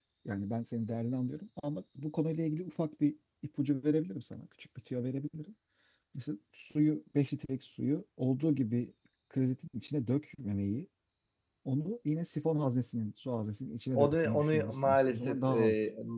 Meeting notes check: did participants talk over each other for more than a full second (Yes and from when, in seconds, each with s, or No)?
Yes, from 13.9 s